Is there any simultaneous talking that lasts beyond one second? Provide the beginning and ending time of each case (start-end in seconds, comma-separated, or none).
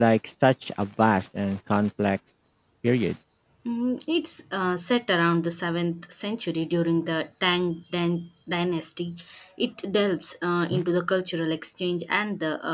none